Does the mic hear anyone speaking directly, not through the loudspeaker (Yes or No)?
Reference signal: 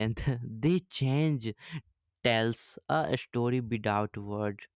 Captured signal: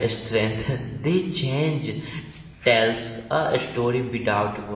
No